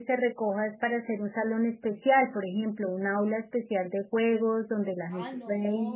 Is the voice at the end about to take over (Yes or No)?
Yes